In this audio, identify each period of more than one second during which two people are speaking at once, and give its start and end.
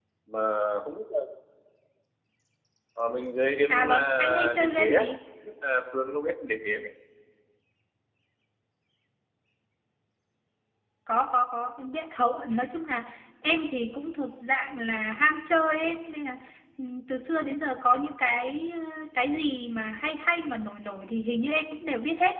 3.7-5.0

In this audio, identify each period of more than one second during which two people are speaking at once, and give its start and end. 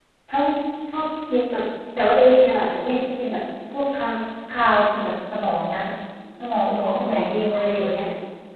6.6-8.0

